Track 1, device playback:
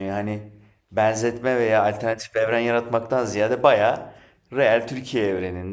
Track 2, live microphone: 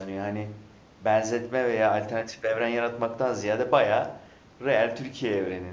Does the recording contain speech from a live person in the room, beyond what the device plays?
No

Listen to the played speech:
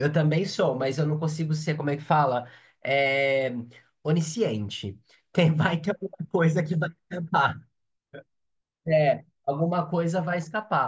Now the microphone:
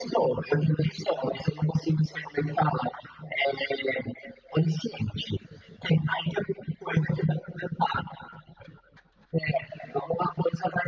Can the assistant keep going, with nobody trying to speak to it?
Yes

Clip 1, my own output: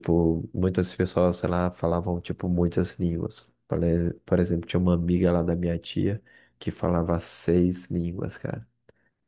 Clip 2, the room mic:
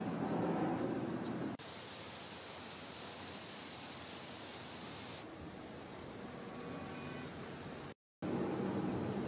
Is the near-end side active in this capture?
No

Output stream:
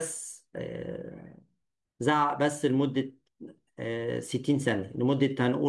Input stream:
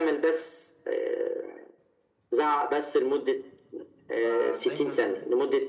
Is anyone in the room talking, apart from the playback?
Yes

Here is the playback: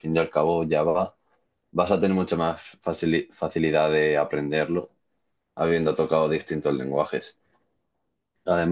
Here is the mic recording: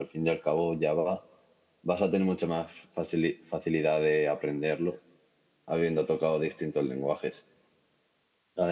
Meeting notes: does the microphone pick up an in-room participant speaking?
No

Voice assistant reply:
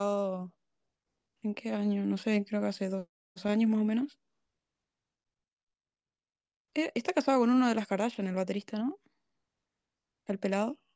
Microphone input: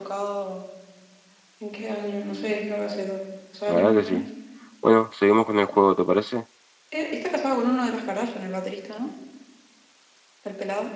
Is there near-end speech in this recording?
Yes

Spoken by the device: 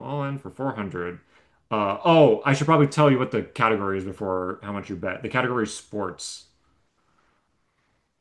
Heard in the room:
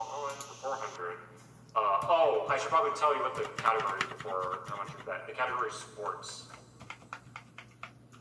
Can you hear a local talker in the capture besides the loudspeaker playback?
No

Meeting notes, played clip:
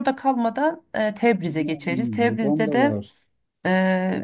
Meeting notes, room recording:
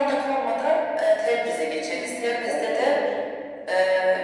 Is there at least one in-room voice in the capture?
No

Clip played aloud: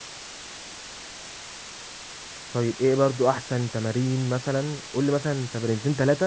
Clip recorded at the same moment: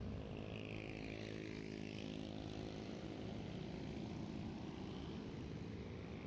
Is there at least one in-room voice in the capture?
No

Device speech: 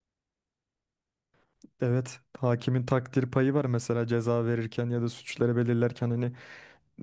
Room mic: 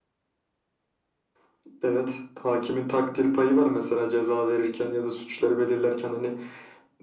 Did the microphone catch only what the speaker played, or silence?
Yes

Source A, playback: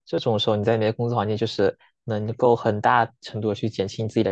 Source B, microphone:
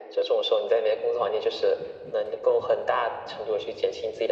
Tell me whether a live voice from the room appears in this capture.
No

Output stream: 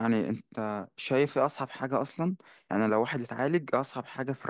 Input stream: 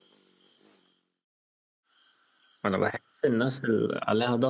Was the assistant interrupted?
Yes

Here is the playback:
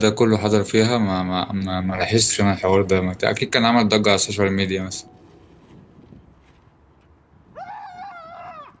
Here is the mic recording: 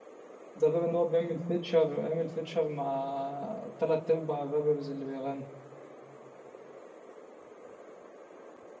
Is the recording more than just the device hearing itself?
Yes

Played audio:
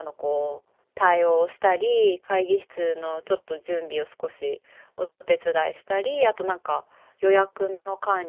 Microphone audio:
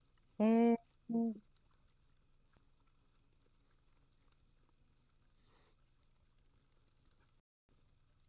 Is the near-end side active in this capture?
Yes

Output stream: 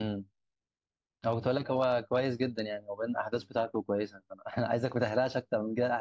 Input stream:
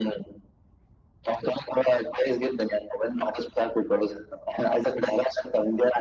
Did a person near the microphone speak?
No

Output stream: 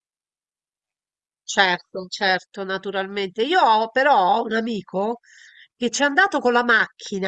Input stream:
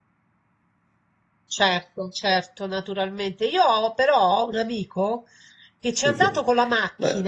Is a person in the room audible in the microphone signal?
Yes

